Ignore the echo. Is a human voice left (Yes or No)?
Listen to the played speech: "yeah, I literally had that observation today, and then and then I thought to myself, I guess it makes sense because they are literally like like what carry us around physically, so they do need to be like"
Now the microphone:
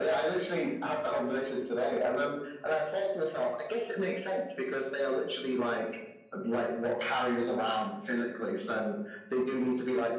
No